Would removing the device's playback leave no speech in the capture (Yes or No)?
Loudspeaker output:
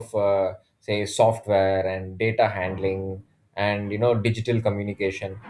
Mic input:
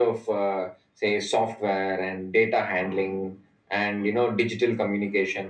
Yes